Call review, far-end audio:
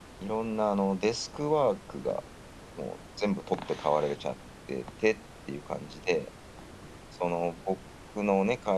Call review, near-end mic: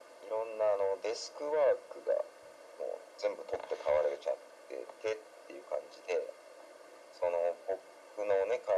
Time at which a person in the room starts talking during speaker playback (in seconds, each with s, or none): none